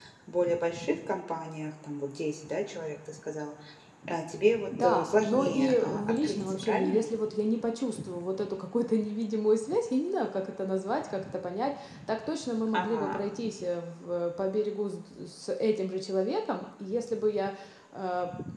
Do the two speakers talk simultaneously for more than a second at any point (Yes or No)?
Yes